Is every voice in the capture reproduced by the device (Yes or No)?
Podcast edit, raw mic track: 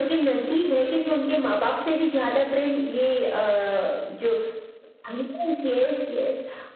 Yes